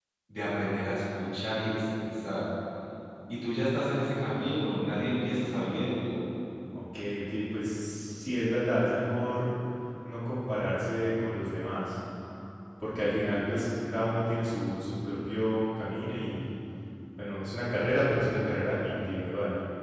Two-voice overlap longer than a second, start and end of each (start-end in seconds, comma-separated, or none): none